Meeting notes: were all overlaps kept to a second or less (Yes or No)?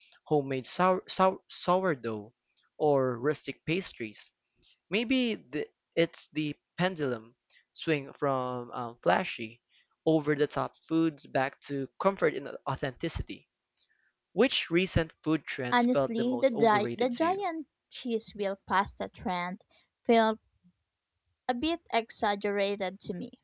No